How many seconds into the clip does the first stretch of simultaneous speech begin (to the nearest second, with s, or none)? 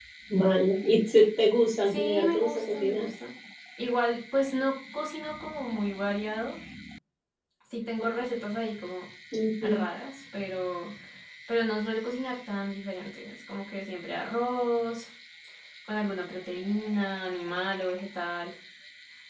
2 s